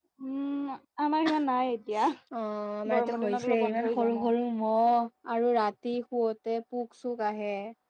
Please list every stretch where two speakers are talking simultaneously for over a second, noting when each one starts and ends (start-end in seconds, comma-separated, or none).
3.0-4.3